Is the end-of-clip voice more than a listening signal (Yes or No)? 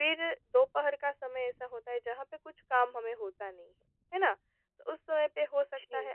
No